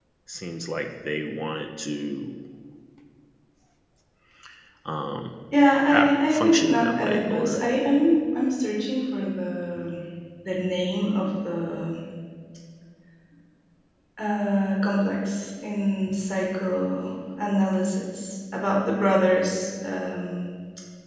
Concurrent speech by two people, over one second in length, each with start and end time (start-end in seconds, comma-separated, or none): 5.9-7.6